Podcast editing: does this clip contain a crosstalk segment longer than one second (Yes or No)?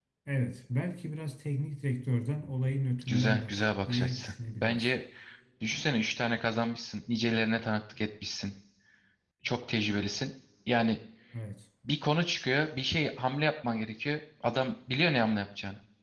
Yes